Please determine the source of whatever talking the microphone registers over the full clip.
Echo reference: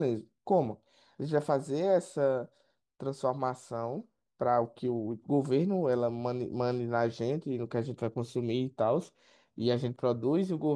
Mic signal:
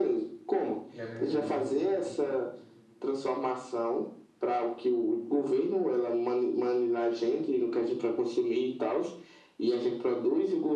both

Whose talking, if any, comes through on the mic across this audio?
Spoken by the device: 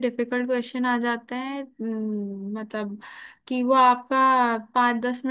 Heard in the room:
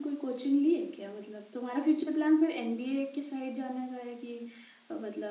user only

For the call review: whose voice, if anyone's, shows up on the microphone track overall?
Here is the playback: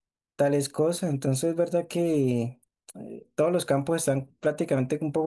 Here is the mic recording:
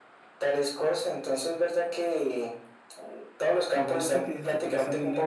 both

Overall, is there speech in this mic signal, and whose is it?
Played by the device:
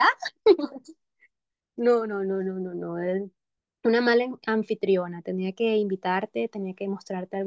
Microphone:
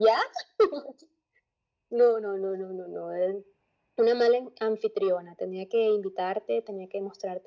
echo only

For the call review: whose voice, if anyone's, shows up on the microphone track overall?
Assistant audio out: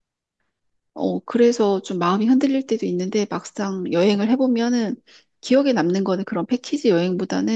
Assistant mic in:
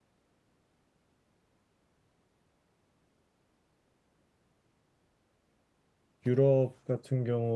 user only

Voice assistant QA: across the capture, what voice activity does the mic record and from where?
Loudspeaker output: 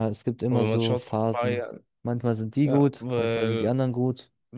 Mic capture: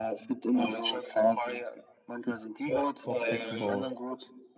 both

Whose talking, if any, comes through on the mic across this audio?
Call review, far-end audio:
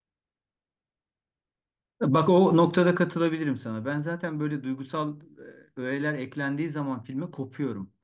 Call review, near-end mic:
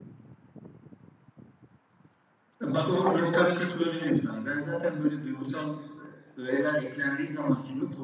echo only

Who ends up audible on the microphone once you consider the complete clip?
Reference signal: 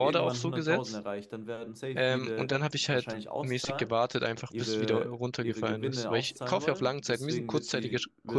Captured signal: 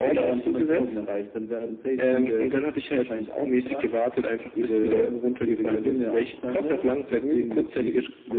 echo only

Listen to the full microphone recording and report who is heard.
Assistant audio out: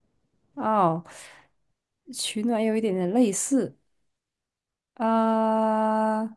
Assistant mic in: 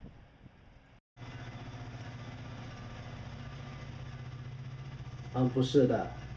user only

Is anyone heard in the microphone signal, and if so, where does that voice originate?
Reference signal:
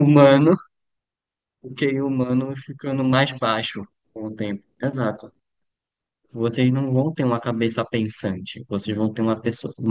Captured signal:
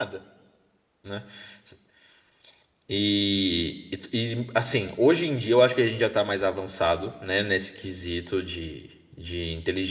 user only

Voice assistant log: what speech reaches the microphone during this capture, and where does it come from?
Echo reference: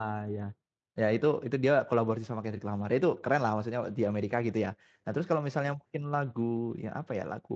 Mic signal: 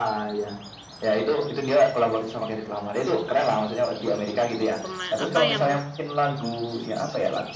both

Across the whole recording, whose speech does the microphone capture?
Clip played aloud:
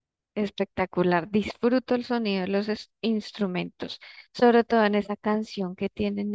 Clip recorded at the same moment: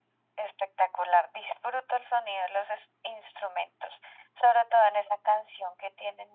echo only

